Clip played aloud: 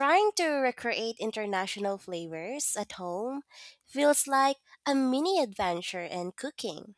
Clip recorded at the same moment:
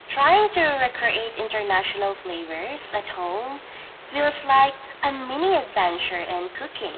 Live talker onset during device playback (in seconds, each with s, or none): none